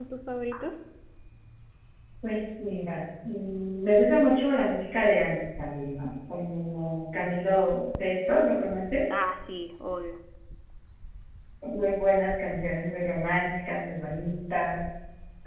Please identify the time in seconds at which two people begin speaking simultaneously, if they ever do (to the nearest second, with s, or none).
none